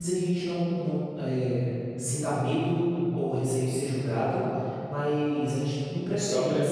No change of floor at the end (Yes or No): Yes